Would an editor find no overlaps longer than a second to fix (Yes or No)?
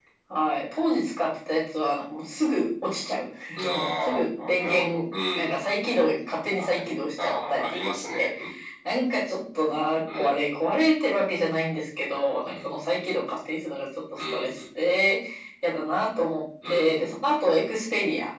No